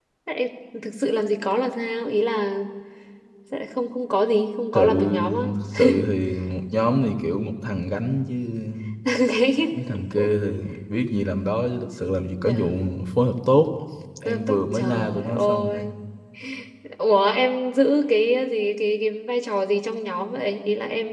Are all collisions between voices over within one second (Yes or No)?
No